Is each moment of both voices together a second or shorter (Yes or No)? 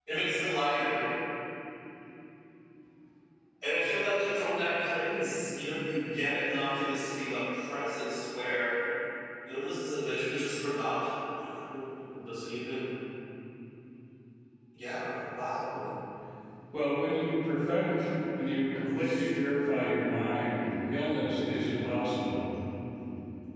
Yes